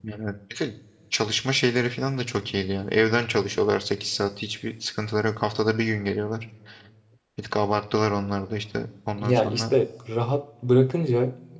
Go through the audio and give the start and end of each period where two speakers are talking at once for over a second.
none

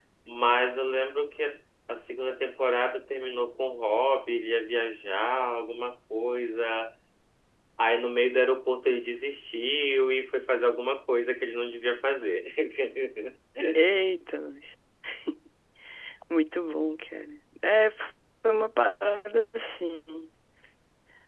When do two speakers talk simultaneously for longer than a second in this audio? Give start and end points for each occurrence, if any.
none

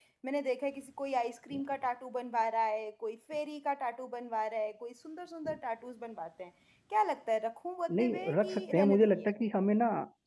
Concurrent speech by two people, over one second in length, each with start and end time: 8.0-9.3

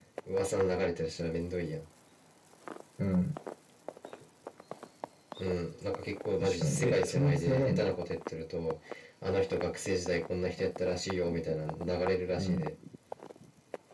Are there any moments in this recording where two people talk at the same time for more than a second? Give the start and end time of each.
6.4-7.9

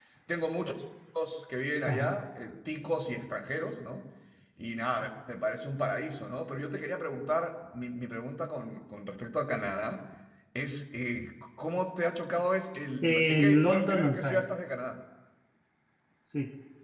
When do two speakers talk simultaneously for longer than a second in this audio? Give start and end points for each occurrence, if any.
13.0-14.4

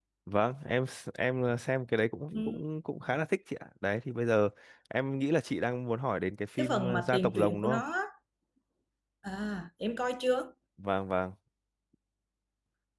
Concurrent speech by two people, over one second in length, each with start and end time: 6.6-7.8

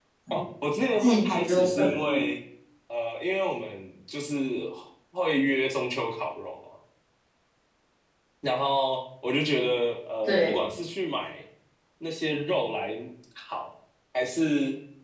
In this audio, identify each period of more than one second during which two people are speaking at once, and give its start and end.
1.0-2.2

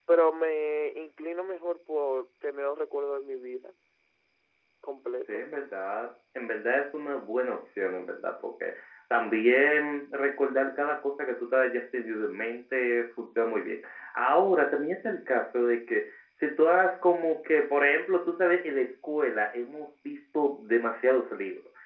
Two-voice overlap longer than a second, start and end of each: none

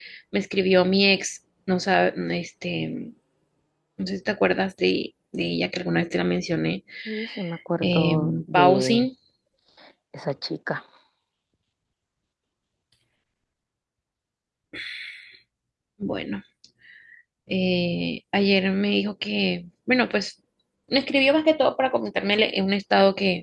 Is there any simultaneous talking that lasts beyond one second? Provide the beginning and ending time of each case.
7.8-9.1

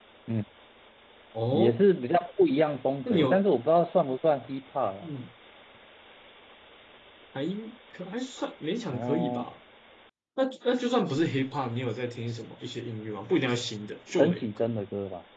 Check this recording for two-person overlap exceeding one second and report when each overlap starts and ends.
none

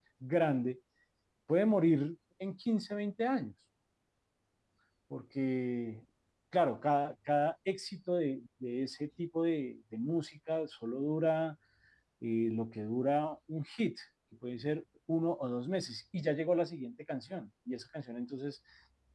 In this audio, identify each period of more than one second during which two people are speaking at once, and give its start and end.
none

